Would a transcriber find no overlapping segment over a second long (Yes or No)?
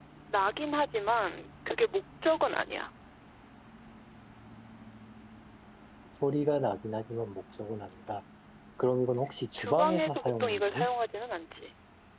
No